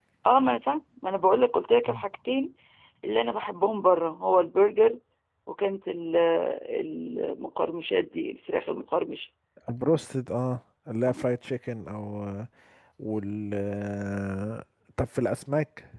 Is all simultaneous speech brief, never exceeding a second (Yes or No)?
Yes